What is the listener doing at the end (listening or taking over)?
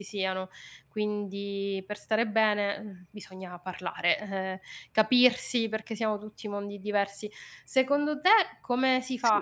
listening